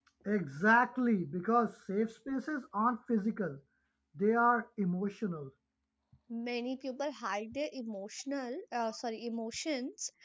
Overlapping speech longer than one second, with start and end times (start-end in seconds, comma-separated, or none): none